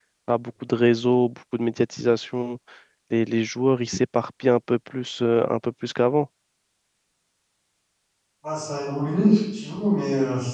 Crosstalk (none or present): none